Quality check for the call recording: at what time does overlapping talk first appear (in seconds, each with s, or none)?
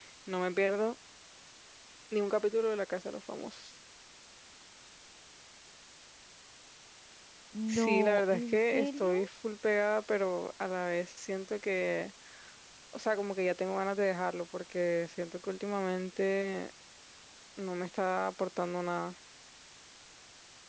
7.7 s